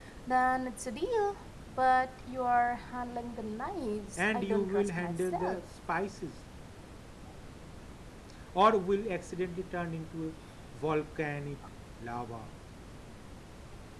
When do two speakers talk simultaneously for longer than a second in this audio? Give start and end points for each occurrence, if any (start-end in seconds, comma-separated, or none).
4.2-5.6